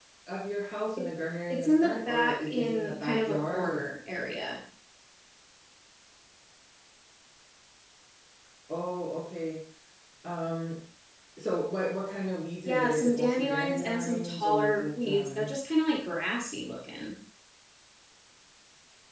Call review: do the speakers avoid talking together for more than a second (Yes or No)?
No